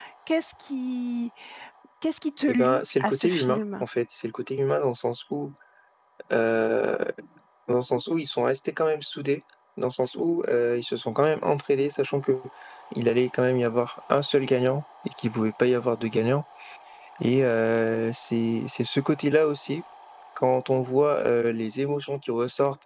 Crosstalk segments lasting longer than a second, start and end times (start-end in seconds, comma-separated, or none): 2.5-3.8